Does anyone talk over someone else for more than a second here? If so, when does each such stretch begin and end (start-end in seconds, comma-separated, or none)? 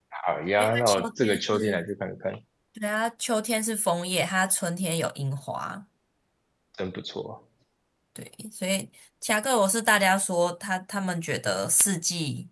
0.6-1.8